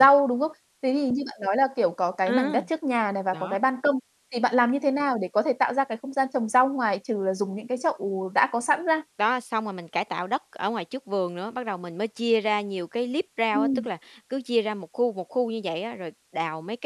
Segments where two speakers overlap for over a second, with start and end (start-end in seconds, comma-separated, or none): none